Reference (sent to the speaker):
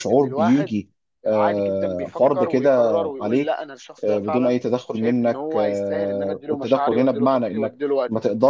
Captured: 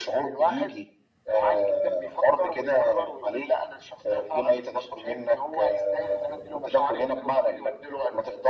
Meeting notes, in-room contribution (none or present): none